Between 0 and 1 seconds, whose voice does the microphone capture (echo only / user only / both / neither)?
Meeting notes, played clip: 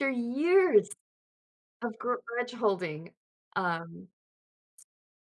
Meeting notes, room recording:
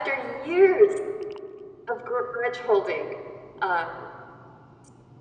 echo only